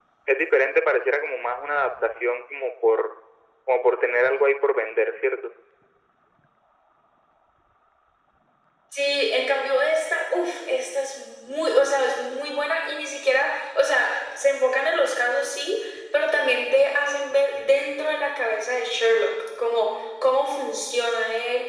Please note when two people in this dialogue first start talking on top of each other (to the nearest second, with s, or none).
none